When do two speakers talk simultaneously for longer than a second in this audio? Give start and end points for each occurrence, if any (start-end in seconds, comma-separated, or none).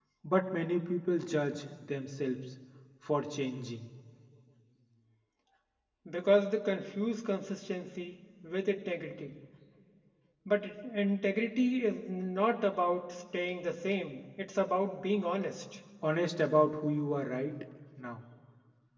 none